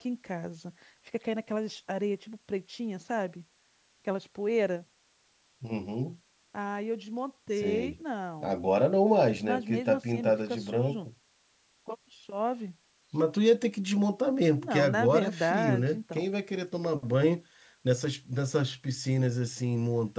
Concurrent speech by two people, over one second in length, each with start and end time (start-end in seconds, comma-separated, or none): 9.4-11.1, 14.5-16.3